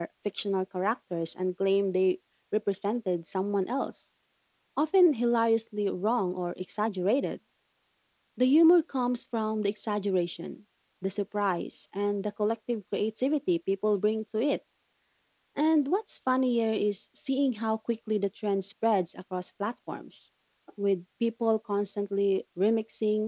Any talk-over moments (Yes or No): No